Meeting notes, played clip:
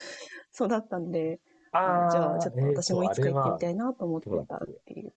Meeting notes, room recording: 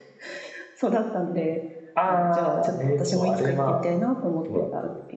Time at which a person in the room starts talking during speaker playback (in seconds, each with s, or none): none